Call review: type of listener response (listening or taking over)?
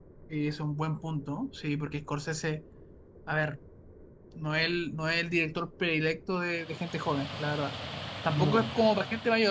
listening